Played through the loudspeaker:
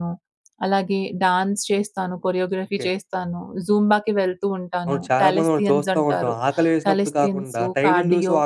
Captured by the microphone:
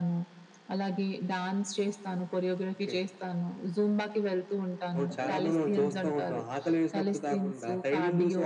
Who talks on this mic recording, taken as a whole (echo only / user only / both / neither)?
both